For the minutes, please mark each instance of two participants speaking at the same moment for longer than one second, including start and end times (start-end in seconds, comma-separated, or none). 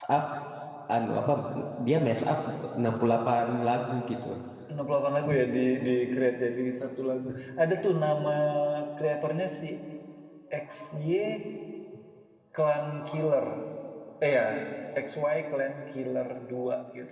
none